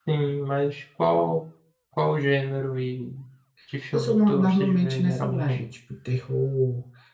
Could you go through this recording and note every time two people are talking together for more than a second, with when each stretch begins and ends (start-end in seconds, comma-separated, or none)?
3.9-5.6